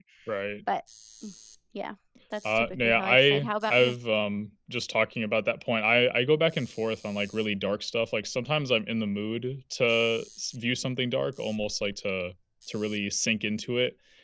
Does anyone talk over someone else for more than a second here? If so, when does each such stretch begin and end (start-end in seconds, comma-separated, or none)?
2.4-3.9